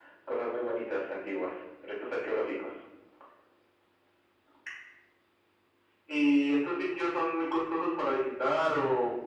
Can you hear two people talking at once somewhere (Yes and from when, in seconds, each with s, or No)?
No